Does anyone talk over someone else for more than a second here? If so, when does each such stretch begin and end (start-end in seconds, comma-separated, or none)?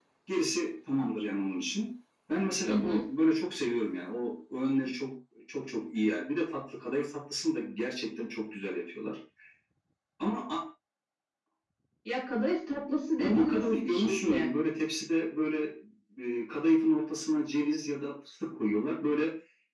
13.2-14.5